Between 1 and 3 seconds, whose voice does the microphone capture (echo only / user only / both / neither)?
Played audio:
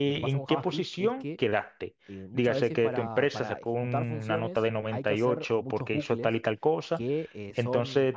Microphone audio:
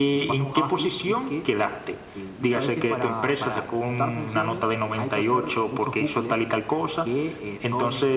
echo only